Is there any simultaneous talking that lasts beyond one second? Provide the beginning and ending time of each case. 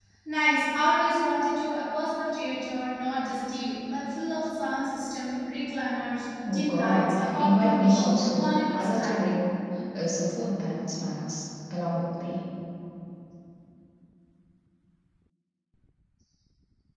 6.5-9.2

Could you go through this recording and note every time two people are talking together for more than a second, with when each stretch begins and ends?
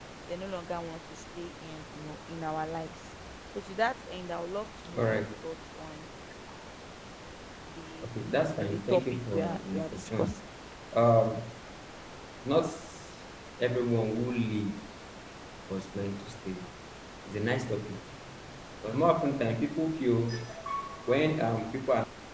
8.5-10.4

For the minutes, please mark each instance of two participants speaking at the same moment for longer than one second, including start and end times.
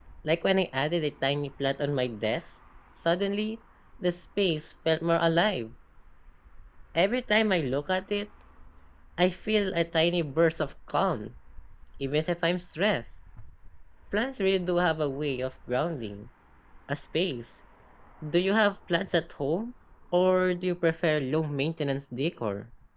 none

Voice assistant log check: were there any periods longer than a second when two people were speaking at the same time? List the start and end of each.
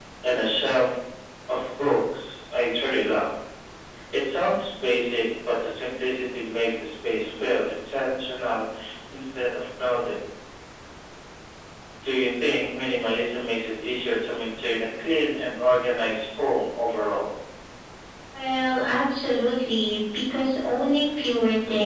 none

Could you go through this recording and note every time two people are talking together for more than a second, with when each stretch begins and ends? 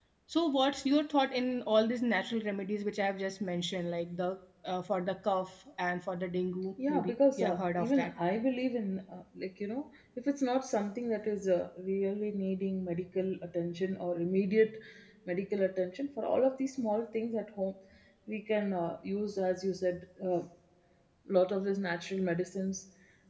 6.9-8.1

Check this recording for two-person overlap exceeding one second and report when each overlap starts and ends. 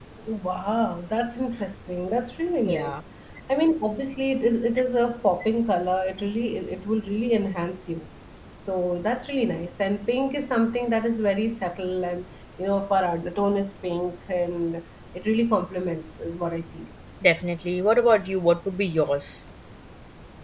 none

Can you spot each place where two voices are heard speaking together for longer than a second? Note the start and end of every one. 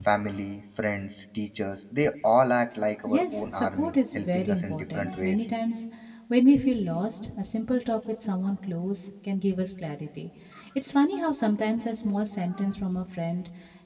3.1-5.5

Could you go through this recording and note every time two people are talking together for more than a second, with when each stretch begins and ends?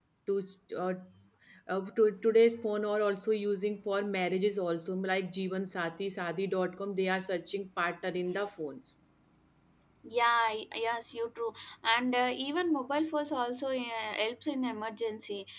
none

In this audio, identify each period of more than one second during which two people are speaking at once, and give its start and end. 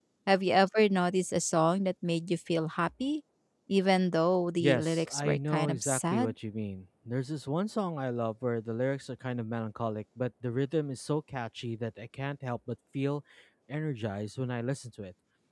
4.6-6.3

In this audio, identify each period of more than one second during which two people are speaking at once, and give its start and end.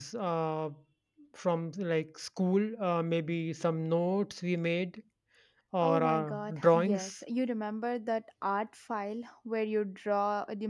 5.8-7.1

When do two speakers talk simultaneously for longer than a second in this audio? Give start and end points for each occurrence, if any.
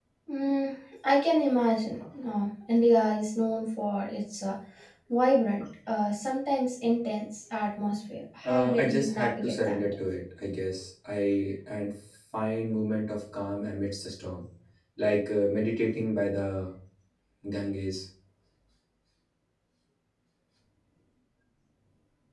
8.4-9.8

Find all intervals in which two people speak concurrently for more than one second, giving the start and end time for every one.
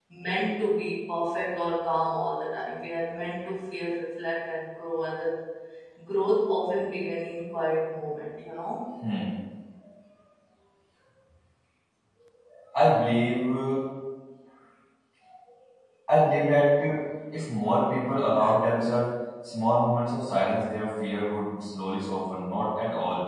none

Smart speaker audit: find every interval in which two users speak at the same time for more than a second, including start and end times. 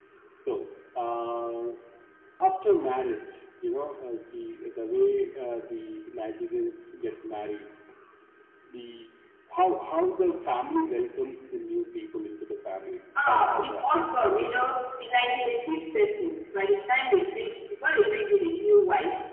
13.3-14.7

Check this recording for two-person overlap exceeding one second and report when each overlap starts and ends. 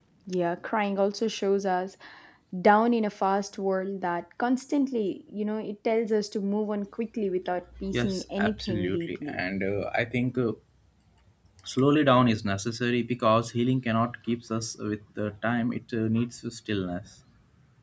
7.9-9.4

